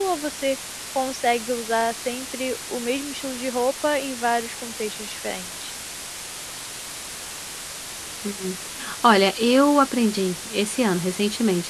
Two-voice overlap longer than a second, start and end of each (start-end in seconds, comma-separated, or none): none